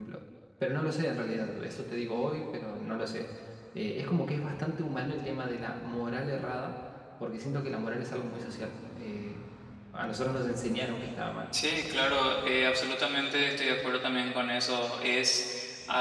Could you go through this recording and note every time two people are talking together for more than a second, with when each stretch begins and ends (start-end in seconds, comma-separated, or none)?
none